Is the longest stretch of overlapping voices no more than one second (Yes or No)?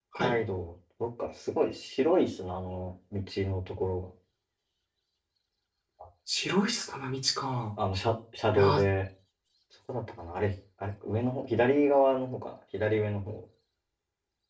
Yes